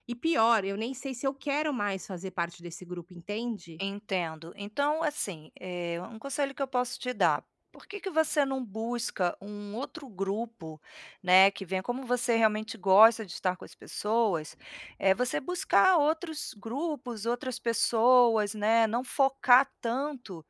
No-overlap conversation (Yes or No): Yes